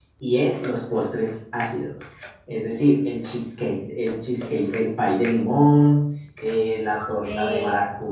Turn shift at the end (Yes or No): No